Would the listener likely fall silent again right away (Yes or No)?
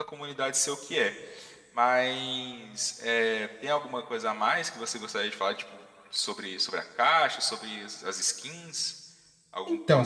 No